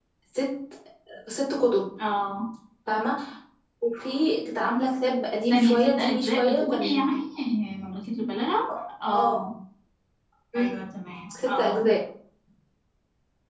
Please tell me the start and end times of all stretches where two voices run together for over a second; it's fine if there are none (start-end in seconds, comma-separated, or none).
5.5-7.0